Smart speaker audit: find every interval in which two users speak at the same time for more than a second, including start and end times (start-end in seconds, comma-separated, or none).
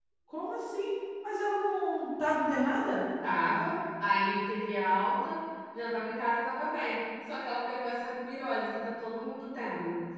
none